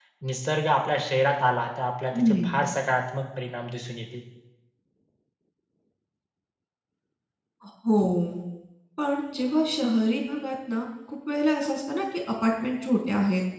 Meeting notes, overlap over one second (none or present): none